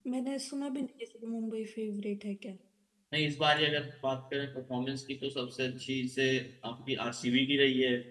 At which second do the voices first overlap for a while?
none

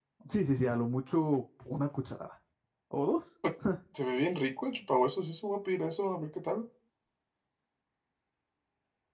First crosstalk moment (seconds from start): none

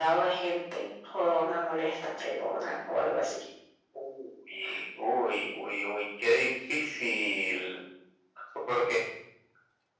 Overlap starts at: none

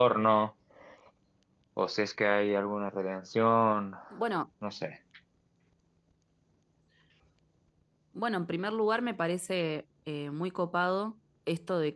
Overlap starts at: none

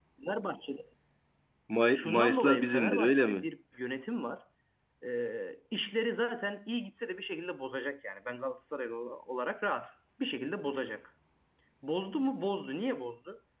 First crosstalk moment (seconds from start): 2 s

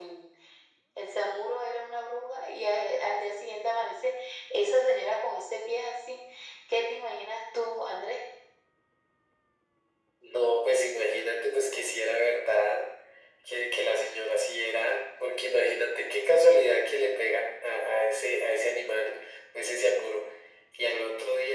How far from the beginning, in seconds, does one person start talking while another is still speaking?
none

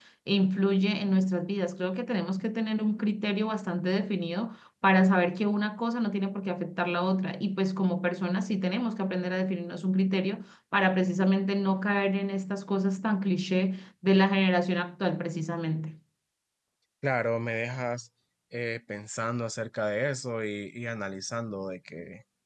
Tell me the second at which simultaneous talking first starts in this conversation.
none

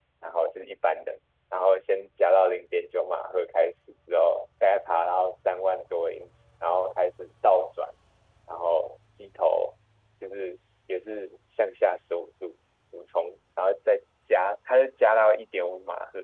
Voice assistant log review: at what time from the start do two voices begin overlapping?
none

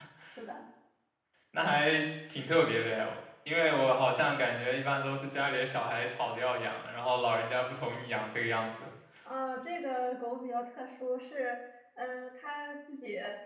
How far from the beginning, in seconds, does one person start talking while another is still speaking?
none

